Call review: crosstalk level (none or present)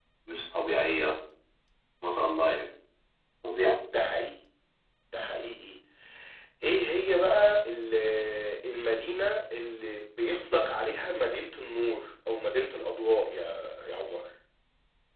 none